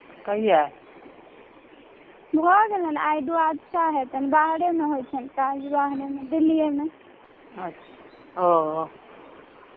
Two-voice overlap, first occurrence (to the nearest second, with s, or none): none